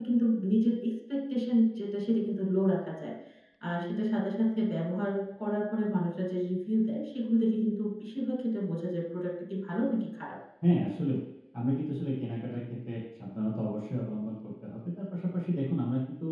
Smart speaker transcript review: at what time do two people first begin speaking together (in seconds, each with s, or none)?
none